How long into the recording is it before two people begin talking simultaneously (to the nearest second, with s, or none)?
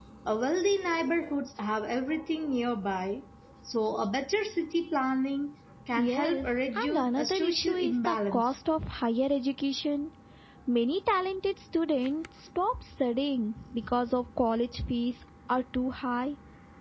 6 s